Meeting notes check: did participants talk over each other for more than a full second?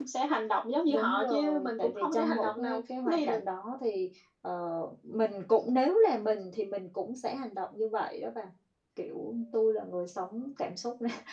Yes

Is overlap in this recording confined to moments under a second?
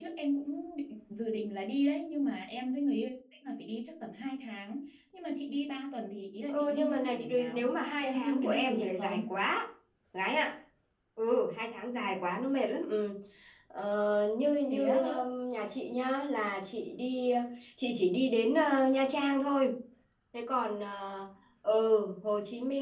No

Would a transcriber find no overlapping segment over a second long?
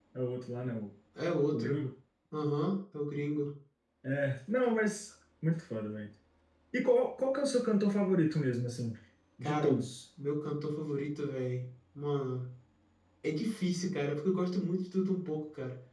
Yes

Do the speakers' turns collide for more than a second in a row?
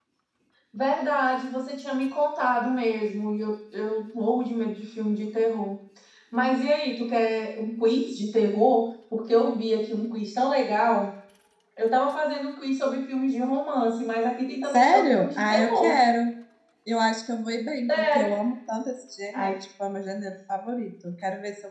Yes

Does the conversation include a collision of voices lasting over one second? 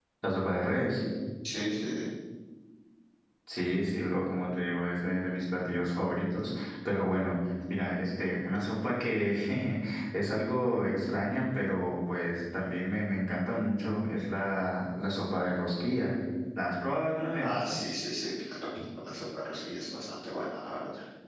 No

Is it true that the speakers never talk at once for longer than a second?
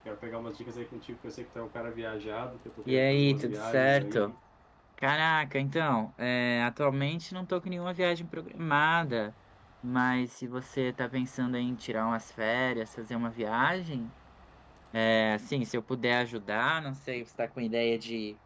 No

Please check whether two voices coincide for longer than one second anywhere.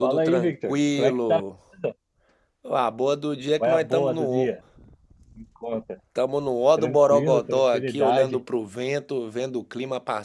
Yes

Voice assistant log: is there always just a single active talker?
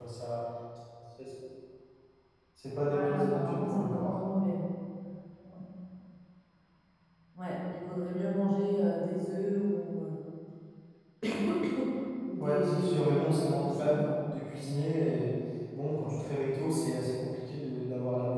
No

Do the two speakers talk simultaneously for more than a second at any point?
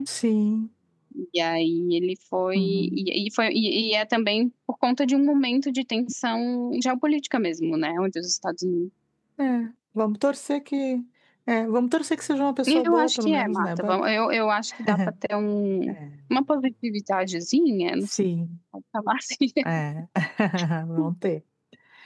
Yes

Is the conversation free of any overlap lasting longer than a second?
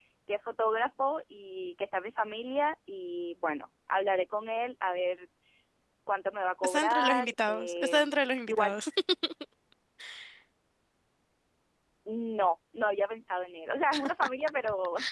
No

